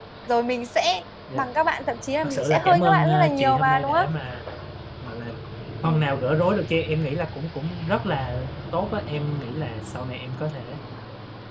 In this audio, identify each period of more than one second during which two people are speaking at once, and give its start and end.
2.2-4.1

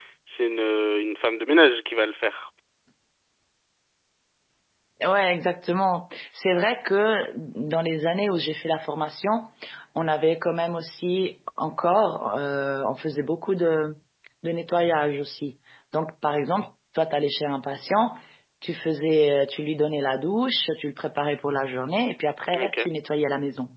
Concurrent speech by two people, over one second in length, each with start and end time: none

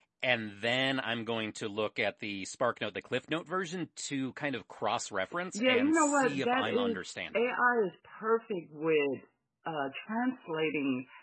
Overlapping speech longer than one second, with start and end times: 5.5-7.4

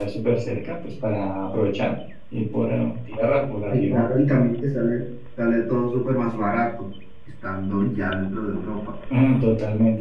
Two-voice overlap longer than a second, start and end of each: none

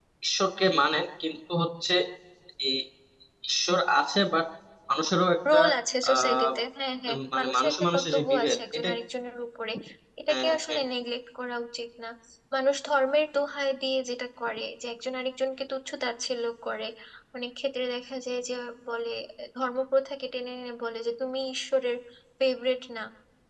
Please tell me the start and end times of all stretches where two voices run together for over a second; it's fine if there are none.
7.1-8.9

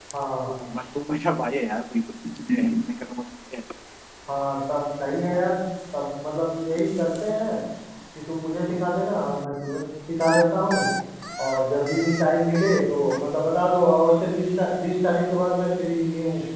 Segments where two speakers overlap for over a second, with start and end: none

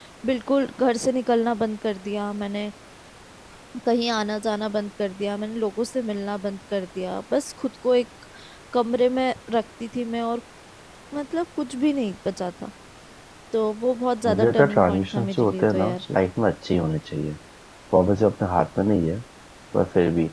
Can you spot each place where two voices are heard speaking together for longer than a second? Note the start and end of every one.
14.3-16.0

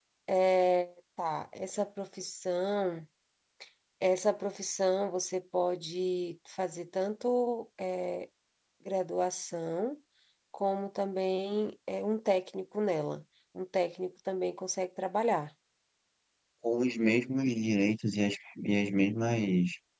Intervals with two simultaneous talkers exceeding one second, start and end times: none

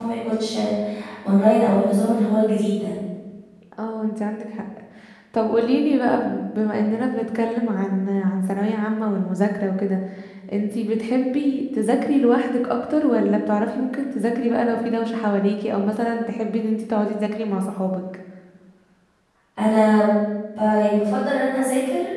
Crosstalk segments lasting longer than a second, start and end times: none

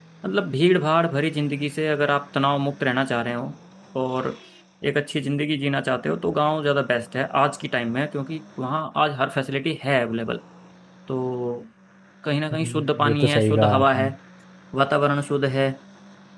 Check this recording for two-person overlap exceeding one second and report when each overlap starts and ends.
12.5-14.1

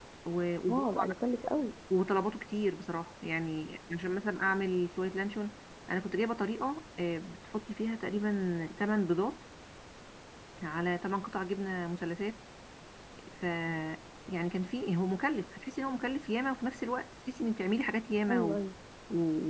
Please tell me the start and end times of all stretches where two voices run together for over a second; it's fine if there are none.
none

